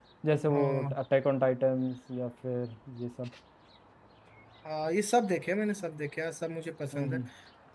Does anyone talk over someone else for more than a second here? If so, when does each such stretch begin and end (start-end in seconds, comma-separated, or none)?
none